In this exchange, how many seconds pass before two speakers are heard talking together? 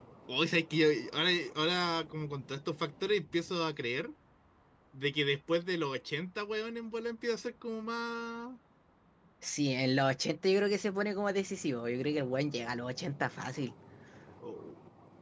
none

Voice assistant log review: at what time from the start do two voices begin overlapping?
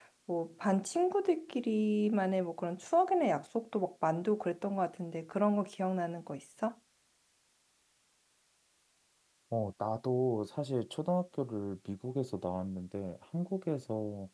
none

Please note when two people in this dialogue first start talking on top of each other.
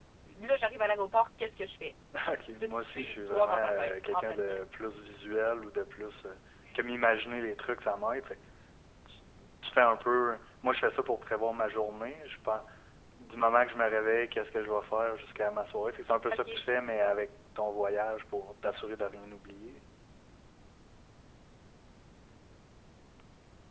3 s

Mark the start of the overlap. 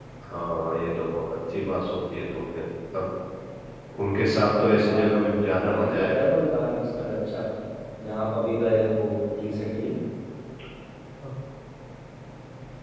5 s

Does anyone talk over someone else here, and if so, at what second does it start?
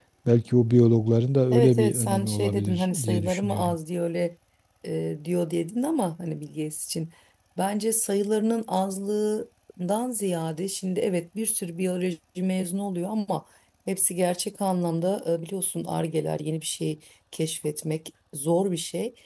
2 s

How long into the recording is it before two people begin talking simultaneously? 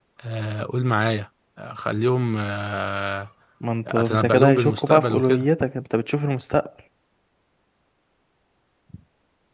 4 s

